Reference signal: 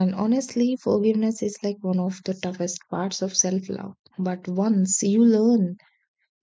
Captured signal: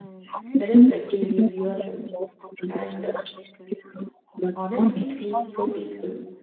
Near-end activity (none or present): present